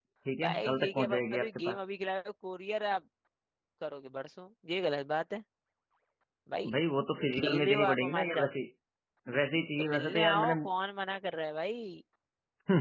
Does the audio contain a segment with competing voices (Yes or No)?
Yes